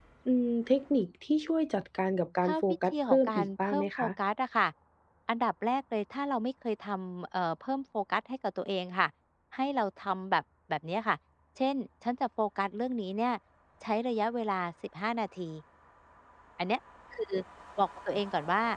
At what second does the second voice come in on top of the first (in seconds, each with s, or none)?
2.4 s